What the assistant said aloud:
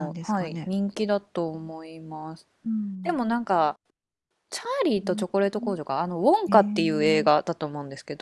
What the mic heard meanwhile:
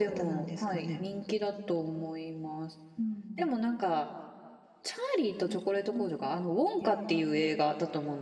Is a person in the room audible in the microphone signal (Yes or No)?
No